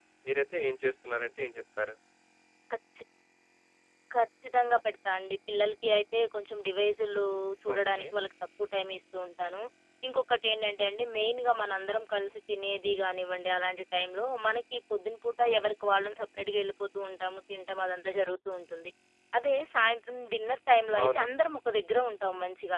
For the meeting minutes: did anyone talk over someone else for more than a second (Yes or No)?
No